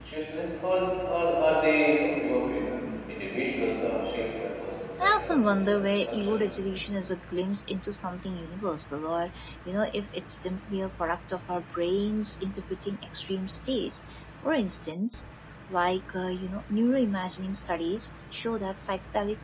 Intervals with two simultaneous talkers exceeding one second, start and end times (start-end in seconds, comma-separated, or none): 5.0-6.4